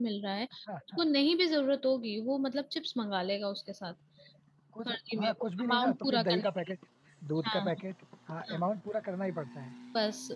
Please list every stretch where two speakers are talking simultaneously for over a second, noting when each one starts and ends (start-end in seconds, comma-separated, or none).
4.8-6.5